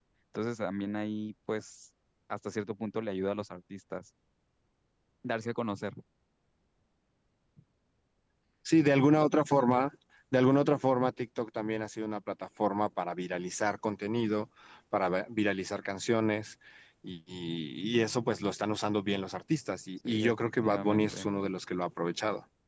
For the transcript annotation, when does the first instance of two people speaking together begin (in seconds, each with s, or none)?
20.1 s